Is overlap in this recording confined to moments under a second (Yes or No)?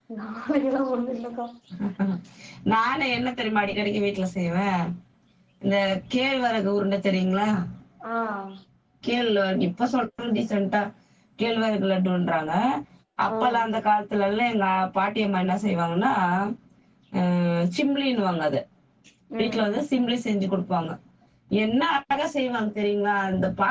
Yes